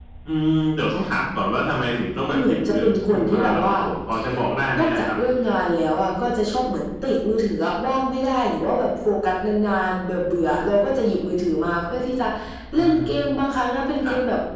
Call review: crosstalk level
present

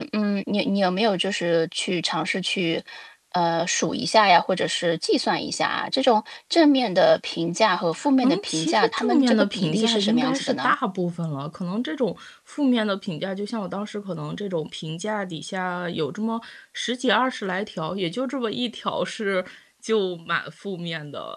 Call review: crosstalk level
present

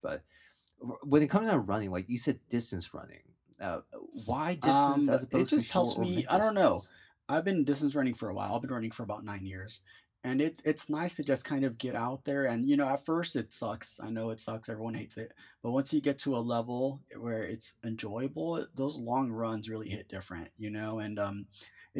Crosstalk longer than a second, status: present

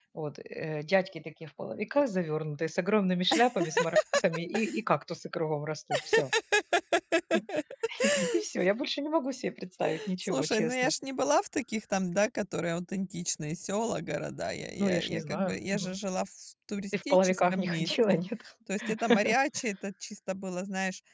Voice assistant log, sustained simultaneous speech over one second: present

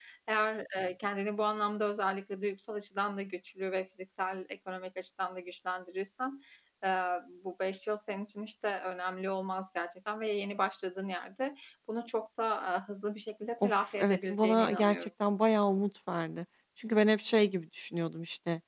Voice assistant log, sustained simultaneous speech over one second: present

